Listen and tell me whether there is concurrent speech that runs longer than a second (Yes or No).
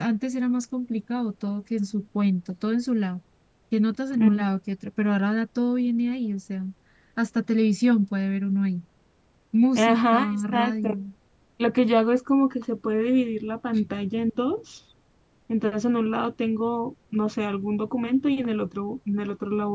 Yes